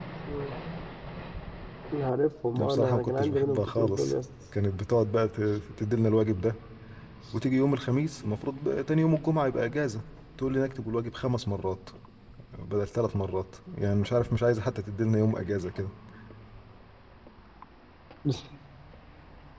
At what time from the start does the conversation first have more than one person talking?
3 s

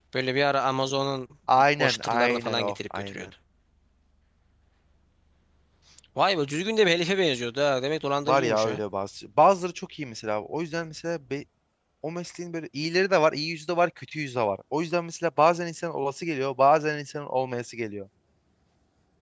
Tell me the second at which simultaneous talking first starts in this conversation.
2 s

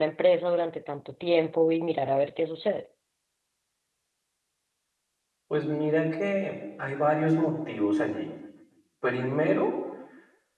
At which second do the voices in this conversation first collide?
none

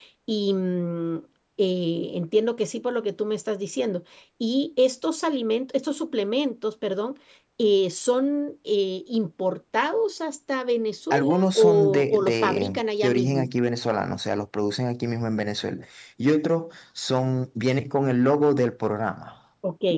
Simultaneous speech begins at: 11 s

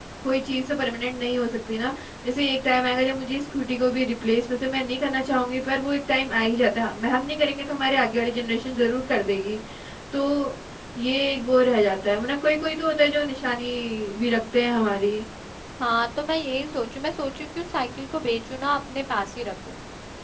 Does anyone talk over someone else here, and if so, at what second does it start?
none

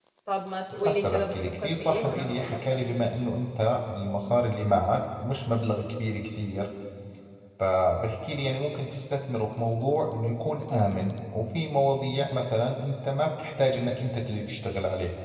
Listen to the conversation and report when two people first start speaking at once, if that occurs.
1 s

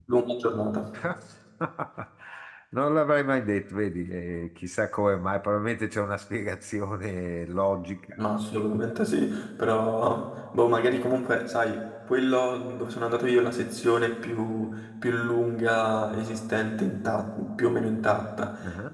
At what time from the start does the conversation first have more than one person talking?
none

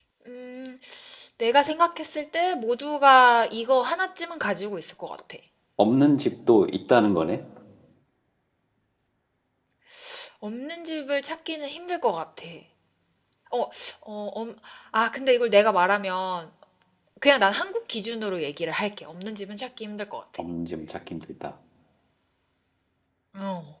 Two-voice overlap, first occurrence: none

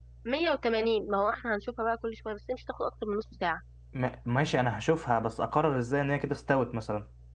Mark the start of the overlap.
none

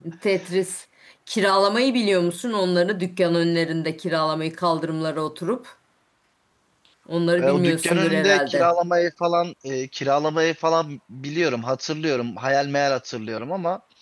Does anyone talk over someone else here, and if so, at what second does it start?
7 s

